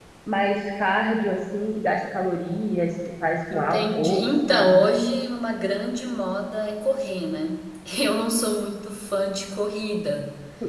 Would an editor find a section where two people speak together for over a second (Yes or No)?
Yes